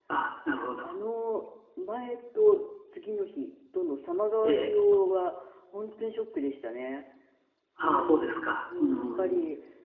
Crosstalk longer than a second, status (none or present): present